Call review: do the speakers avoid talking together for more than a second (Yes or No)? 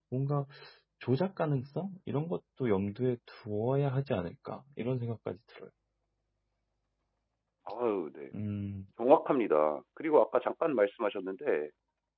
Yes